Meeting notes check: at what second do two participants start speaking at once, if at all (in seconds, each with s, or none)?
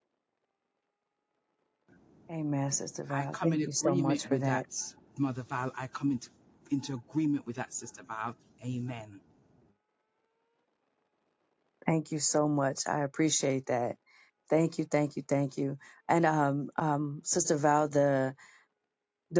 3.1 s